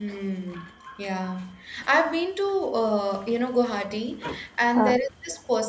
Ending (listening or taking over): listening